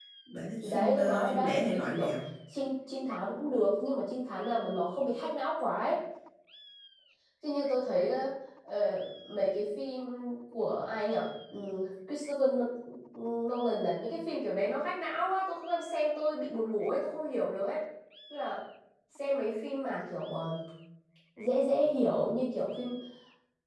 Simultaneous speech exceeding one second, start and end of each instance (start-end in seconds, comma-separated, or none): 0.6-2.1